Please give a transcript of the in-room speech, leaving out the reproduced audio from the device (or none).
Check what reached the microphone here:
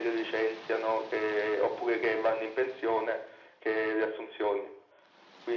none